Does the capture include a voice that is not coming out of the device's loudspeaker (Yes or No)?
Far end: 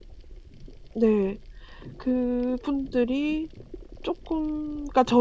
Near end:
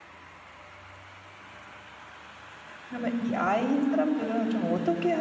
Yes